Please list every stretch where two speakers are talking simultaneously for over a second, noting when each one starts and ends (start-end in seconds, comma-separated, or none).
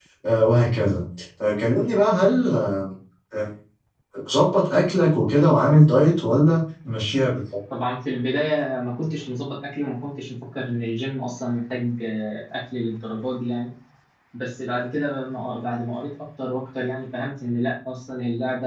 none